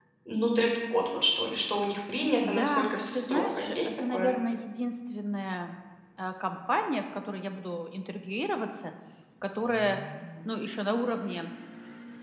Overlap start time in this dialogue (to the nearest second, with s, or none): 2 s